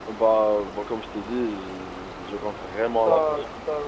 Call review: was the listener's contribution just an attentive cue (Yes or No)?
No